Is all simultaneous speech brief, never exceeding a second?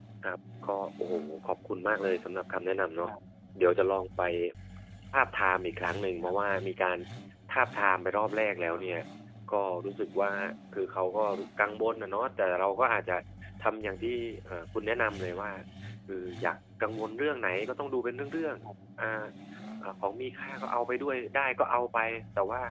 Yes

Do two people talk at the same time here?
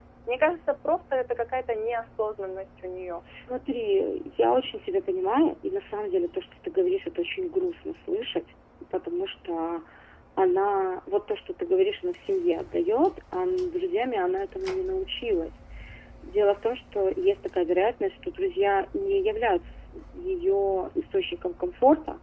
No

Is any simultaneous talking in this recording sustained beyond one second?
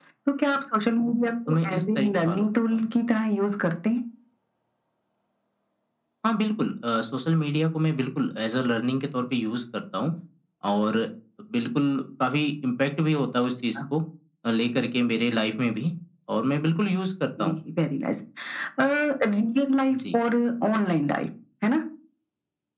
Yes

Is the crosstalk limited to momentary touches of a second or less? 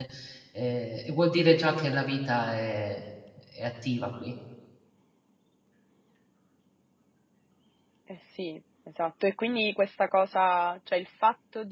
Yes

